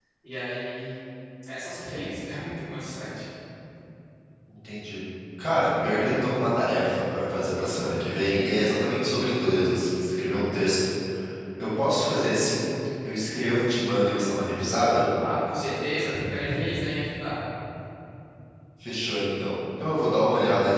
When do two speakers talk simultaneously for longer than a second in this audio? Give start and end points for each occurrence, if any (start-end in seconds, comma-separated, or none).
none